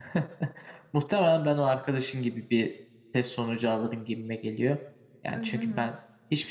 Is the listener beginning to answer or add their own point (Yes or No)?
No